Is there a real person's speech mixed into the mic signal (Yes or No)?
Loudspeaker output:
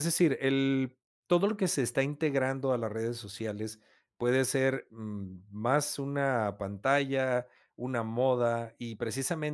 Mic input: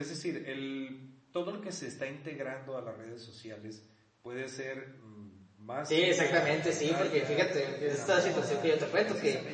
Yes